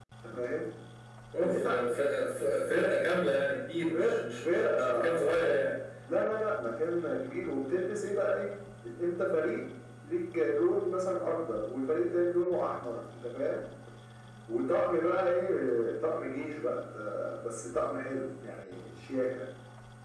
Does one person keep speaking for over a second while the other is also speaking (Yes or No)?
Yes